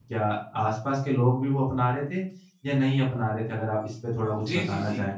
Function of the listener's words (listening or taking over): taking over